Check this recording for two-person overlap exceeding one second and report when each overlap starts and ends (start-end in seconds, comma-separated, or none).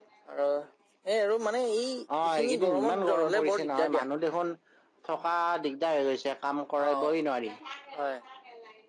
2.4-4.0